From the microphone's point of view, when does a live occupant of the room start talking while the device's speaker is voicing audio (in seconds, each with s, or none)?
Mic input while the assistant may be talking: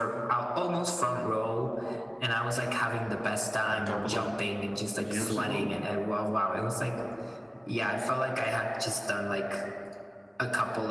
3.7 s